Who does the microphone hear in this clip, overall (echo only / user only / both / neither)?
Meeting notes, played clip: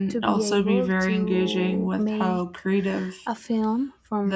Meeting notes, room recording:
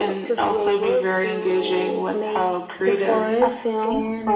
both